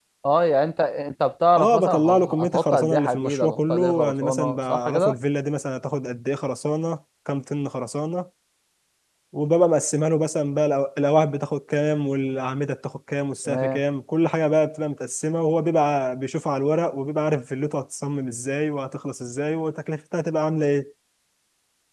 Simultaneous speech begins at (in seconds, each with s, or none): 1.6 s